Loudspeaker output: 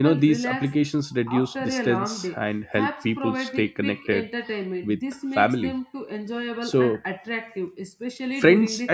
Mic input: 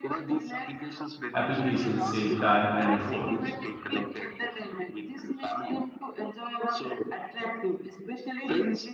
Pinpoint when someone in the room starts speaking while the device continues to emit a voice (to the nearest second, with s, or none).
1 s